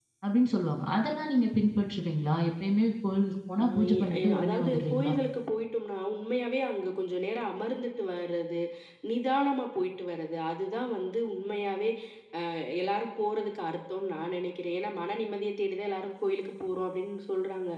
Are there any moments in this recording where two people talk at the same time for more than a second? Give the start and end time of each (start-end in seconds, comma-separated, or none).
3.6-5.1